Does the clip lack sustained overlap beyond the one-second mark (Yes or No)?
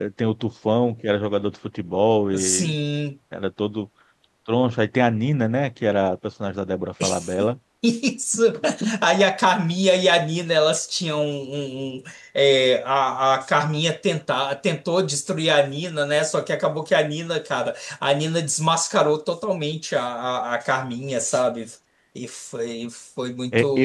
Yes